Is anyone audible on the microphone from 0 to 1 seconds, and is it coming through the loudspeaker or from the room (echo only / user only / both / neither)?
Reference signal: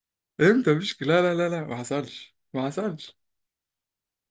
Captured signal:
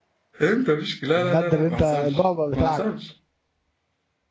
echo only